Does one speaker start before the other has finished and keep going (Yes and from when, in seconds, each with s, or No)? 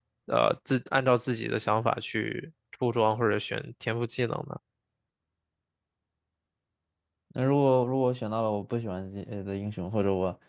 No